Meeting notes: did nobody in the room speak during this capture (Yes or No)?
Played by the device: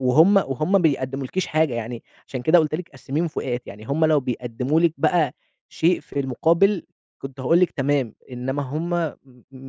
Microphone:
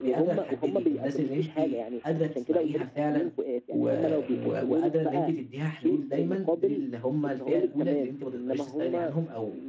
No